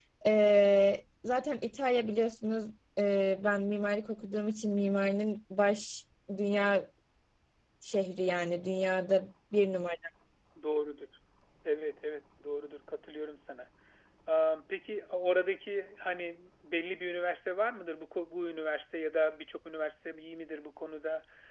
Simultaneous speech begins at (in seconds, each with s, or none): none